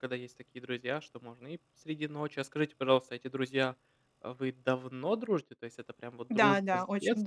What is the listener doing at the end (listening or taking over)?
taking over